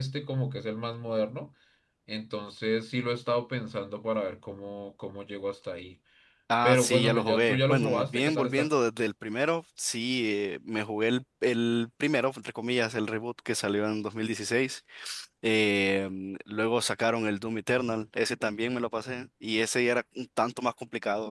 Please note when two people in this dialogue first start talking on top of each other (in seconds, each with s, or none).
6.6 s